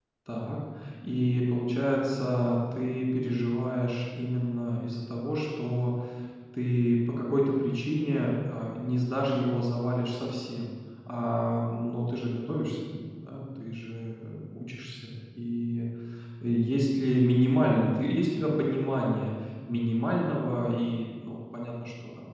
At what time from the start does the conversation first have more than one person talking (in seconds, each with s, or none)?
none